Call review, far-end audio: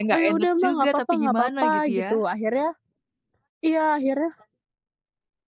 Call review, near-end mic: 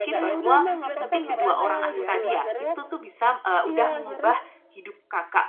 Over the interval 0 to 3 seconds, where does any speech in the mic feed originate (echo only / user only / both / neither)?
both